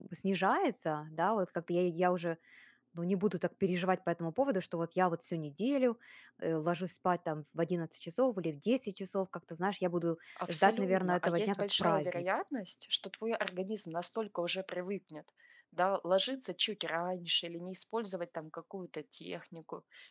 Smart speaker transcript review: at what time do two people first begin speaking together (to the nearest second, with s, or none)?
10 s